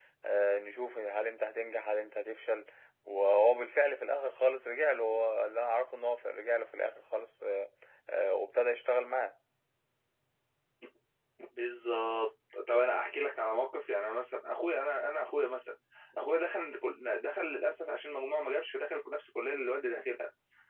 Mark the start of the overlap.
none

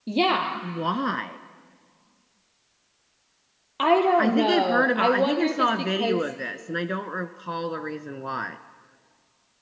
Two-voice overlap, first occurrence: 4.2 s

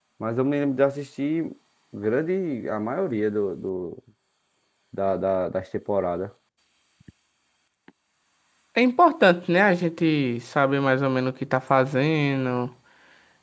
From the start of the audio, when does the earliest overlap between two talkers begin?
none

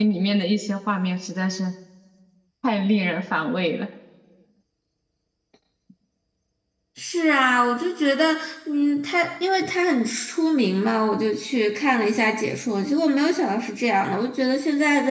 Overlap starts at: none

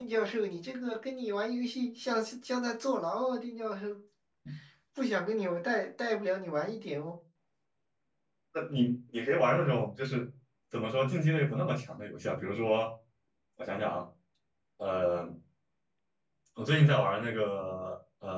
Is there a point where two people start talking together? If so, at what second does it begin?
none

